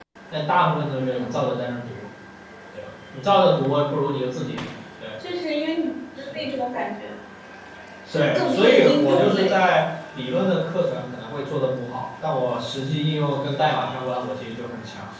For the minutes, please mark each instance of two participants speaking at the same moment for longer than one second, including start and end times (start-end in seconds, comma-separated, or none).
8.1-9.7